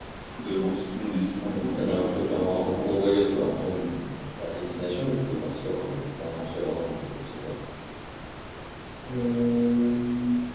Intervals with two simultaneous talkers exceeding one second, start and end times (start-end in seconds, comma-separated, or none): 1.4-3.2